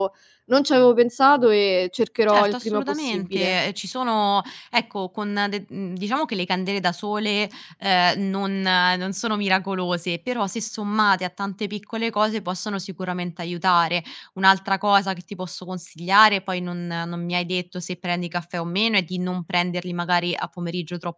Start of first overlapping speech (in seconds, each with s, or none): 2.3 s